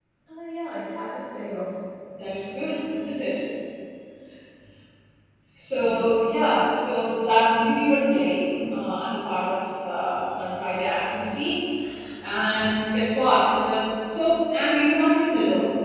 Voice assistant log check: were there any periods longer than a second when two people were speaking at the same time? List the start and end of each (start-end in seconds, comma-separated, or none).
none